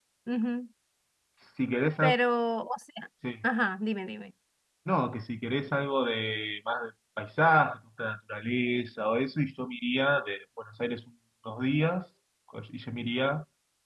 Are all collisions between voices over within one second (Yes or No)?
Yes